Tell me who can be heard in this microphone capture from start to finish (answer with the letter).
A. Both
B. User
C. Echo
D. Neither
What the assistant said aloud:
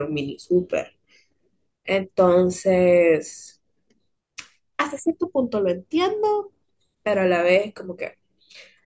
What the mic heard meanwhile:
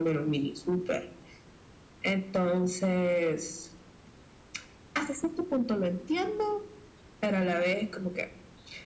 C